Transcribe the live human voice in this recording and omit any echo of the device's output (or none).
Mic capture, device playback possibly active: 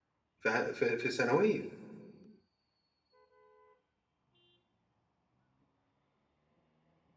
ف في ثانوية،